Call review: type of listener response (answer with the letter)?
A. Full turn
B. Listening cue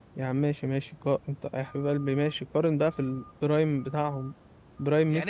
A